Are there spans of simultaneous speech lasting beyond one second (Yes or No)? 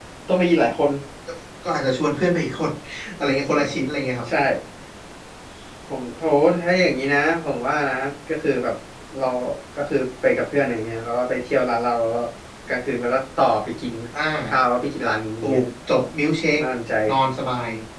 No